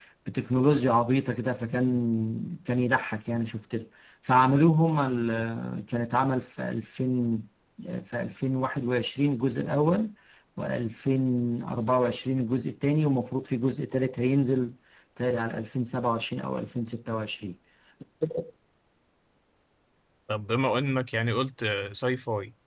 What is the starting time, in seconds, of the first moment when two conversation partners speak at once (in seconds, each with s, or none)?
none